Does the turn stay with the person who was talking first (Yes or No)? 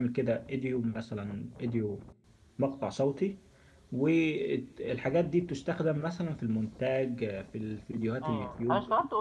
No